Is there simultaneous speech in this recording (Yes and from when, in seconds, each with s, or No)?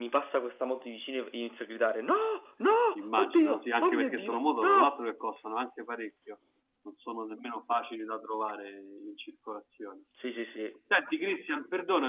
Yes, from 3.2 s